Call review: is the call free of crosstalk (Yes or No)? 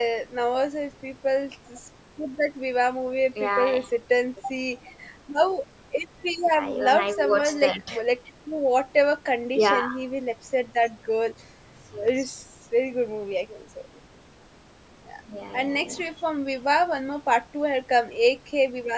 No